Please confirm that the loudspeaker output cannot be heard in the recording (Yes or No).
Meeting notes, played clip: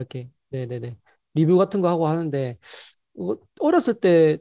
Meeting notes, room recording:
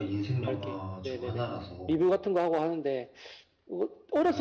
No